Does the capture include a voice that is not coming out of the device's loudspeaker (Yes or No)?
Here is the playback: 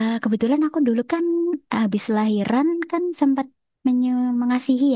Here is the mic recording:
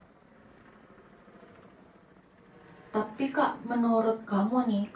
Yes